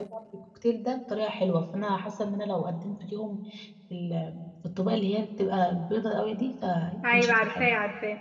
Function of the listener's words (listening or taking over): taking over